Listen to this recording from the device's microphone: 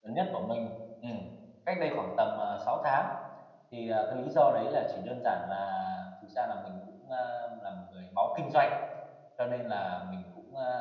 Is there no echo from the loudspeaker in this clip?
Yes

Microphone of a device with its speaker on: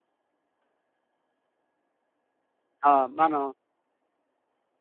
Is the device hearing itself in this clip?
No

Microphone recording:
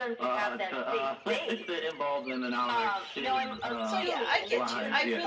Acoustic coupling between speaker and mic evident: Yes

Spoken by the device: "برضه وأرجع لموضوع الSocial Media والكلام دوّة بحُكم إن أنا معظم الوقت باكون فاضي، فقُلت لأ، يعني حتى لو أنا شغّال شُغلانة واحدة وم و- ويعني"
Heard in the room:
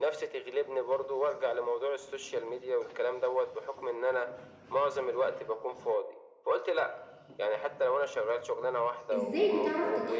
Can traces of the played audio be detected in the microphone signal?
Yes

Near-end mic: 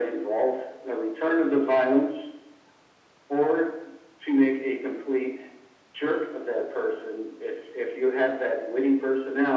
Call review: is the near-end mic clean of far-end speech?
No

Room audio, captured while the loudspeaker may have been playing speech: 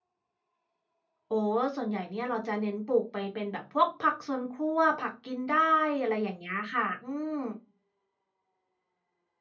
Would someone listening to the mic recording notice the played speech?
No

